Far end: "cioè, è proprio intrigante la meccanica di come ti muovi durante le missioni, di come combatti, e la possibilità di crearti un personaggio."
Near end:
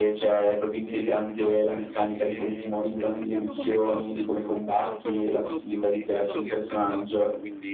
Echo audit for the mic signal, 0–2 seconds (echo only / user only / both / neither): both